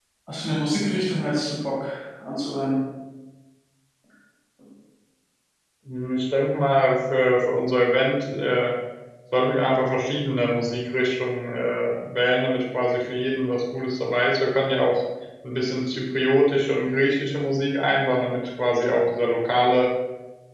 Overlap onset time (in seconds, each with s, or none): none